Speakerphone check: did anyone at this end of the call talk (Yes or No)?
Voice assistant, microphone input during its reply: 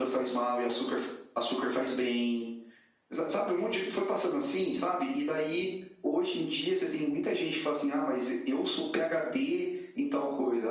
No